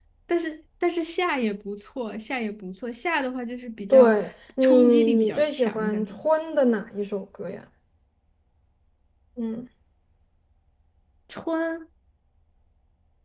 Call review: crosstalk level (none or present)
present